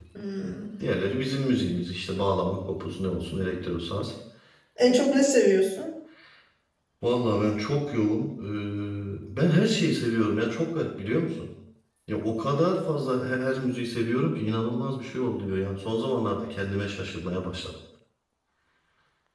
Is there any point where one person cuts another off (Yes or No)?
No